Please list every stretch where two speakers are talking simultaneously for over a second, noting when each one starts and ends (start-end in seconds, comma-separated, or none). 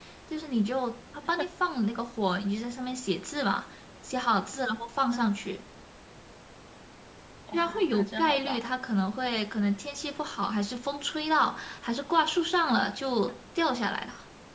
7.5-8.7